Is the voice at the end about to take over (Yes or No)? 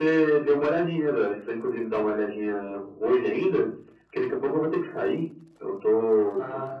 No